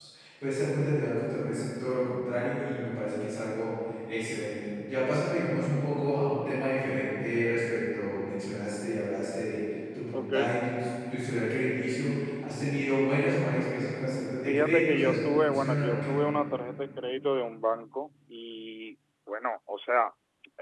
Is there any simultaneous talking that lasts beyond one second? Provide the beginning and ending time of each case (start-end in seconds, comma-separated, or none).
14.4-16.1